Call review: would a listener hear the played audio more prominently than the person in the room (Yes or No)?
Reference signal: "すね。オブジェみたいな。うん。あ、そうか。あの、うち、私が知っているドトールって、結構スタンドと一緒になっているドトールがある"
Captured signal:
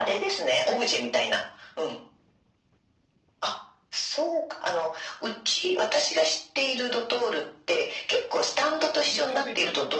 Yes